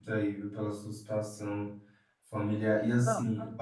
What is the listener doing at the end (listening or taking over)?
listening